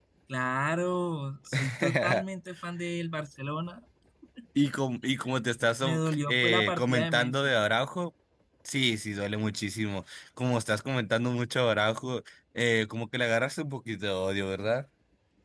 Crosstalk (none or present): present